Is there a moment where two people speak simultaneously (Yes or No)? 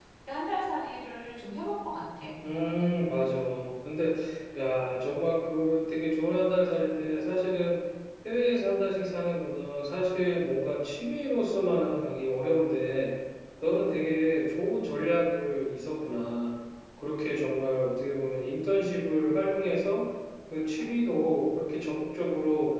No